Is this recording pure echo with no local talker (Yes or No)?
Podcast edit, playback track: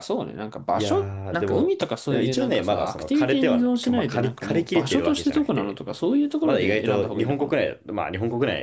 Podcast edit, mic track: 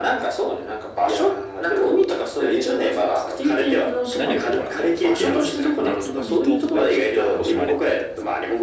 No